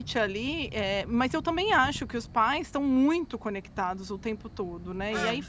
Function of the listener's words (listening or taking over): listening